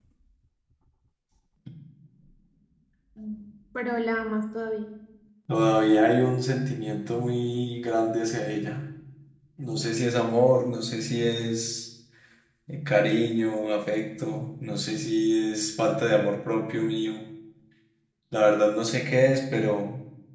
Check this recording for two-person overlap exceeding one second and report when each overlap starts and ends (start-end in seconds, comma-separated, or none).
none